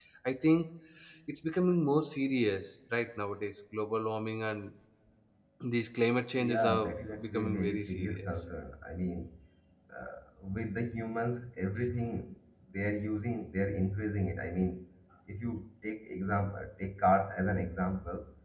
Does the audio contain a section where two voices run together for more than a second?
Yes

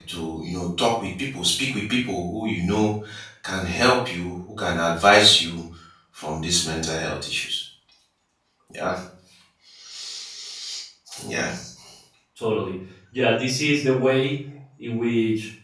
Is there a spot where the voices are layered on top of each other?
No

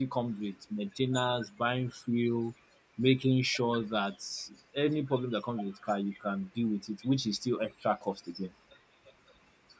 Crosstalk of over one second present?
No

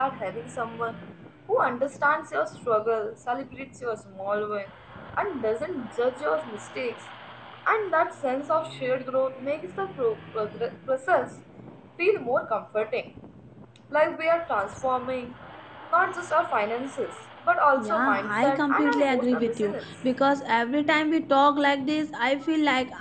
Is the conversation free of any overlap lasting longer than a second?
No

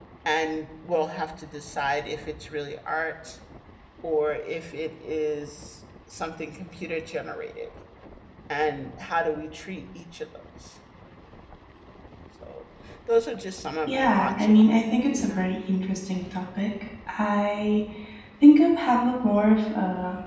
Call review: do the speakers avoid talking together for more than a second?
No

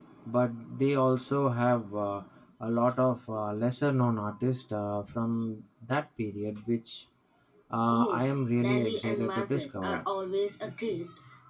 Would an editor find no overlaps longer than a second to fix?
No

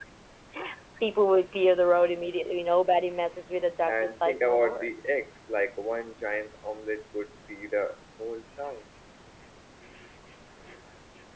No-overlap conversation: No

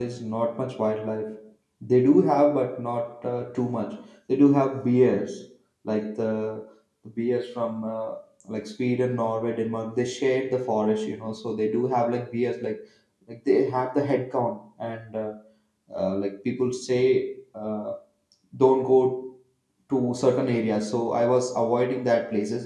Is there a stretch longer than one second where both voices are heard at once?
No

